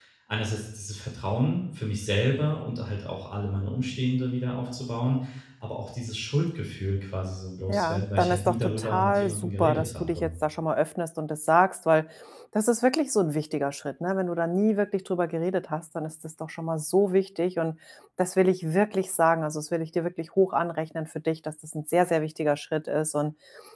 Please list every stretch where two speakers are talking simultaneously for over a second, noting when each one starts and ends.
7.7-10.3

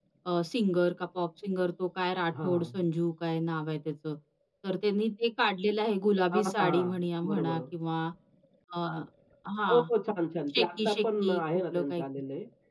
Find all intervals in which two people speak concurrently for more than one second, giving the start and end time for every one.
6.3-7.6, 10.5-12.0

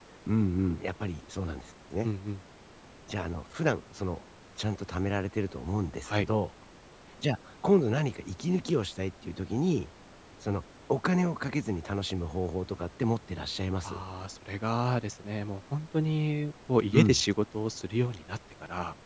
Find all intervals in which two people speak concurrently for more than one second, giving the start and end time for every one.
none

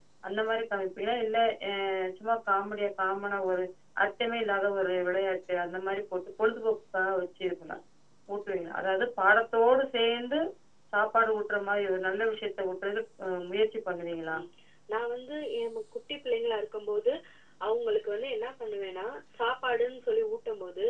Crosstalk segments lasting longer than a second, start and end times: none

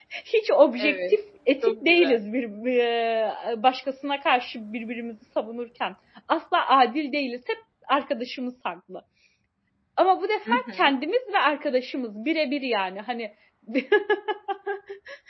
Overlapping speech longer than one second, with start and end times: none

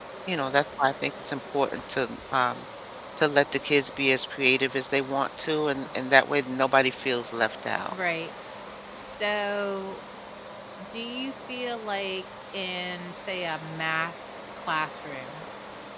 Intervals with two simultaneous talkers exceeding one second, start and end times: none

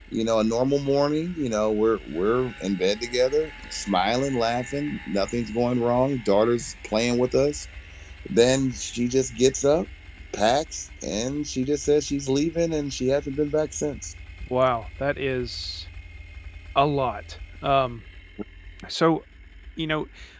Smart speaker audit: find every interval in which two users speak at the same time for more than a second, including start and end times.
none

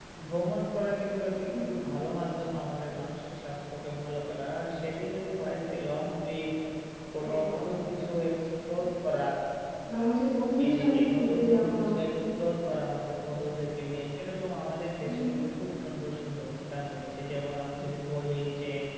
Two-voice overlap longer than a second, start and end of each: 10.6-11.8

